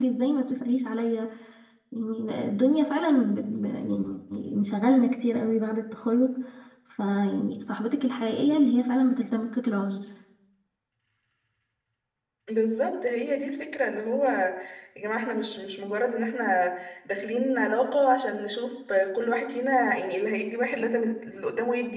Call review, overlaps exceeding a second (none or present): none